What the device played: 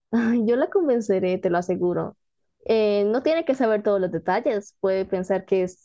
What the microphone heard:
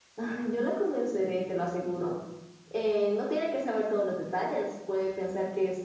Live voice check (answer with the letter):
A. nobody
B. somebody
A